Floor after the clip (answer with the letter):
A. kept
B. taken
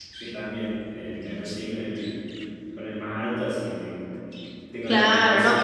B